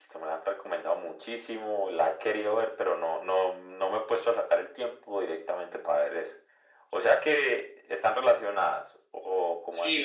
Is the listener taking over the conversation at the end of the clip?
Yes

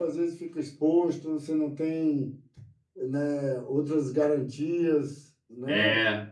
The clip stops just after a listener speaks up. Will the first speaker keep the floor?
No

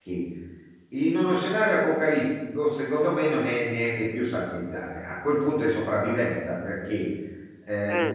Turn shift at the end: No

